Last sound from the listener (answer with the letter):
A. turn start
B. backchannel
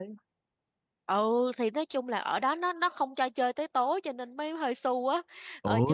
B